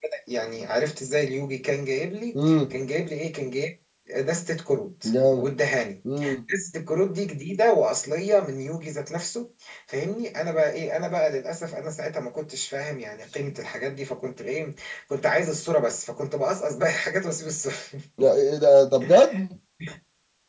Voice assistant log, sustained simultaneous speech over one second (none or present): none